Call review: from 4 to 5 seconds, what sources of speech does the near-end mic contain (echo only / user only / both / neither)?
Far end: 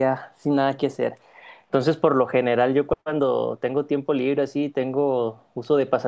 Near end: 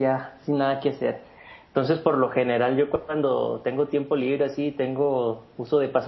echo only